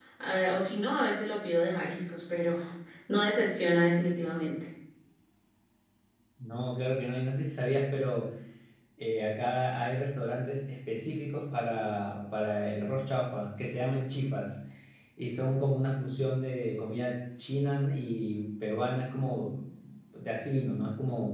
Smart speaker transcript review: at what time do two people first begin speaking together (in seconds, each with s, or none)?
none